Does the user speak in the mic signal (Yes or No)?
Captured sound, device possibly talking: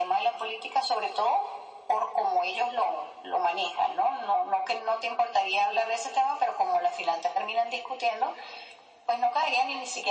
No